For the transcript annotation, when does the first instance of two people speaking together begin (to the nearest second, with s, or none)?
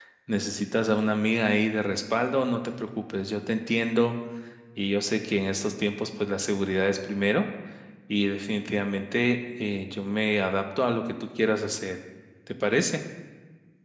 none